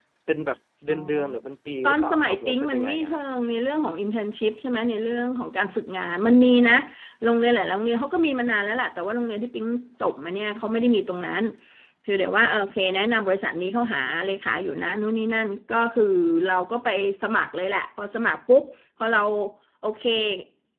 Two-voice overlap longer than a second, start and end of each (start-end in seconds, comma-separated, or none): 1.8-3.1